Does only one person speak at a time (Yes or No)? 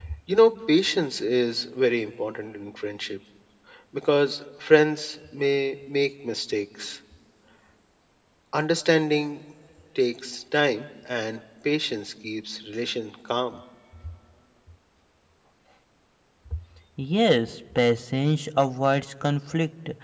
Yes